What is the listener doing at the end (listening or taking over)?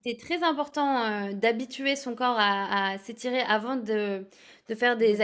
listening